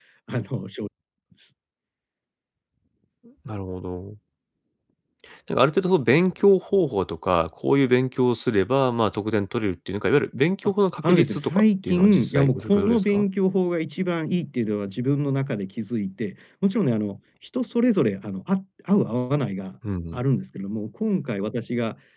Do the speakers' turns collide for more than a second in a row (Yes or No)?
Yes